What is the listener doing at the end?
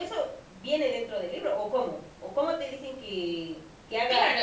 taking over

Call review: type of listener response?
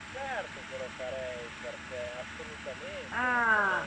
taking over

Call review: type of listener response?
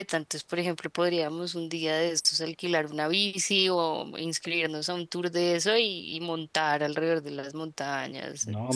taking over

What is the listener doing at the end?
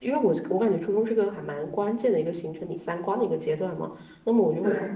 listening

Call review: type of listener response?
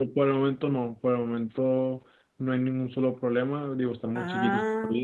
listening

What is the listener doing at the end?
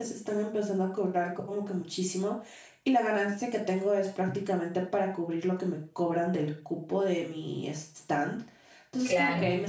listening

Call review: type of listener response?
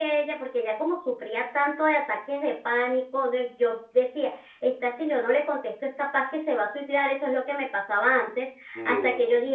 listening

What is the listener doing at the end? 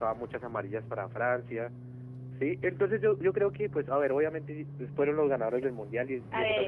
taking over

